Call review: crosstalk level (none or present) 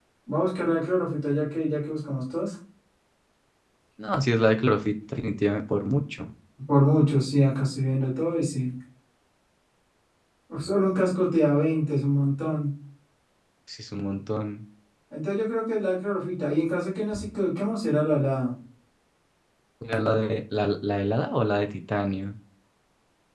none